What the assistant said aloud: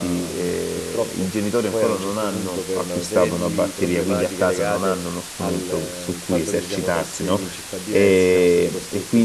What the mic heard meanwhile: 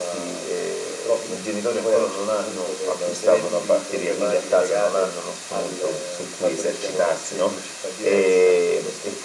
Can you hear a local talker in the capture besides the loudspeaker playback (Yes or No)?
No